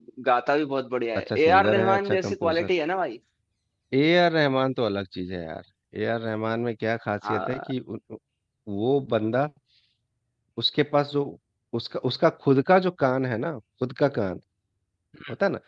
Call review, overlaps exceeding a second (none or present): present